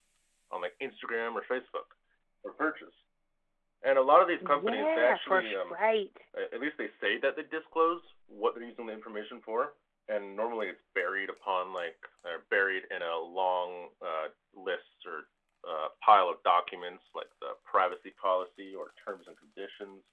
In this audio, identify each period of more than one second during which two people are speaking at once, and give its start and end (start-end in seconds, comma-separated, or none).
4.4-5.8